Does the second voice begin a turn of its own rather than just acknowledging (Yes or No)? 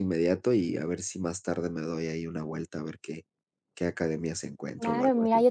Yes